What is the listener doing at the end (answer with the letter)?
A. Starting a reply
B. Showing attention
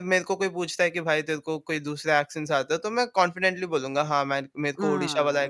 A